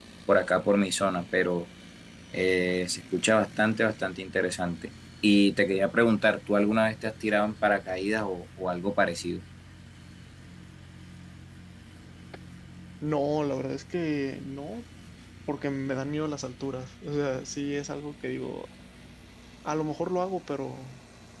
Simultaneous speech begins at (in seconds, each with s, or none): none